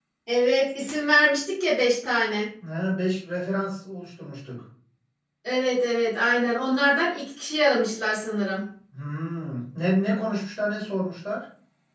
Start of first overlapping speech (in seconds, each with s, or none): none